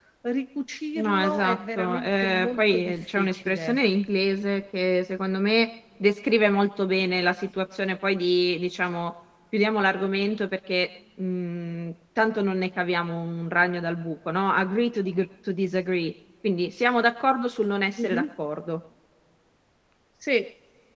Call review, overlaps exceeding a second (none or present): present